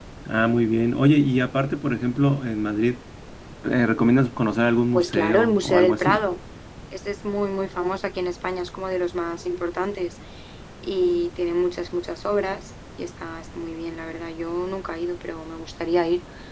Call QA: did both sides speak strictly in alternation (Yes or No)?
No